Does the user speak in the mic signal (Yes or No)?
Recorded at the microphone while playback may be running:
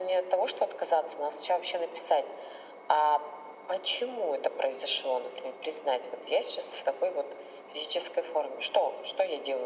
No